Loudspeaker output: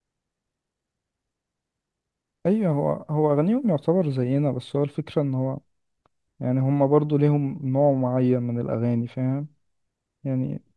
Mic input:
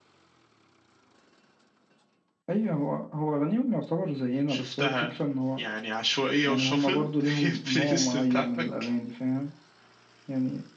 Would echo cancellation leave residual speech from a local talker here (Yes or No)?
Yes